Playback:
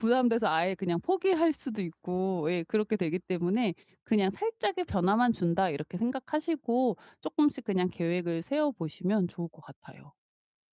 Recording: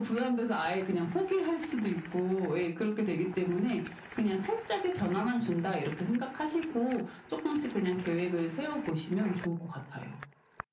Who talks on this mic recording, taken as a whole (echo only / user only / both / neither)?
echo only